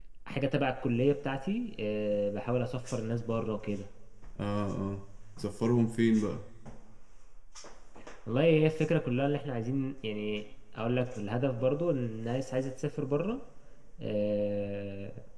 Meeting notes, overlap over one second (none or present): none